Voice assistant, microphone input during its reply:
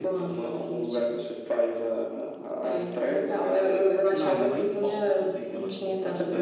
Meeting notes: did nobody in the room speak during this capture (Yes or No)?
No